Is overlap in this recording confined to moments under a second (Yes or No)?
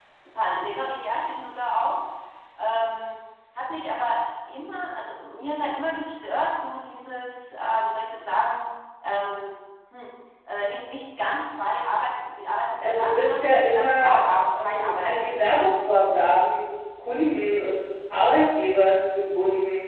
No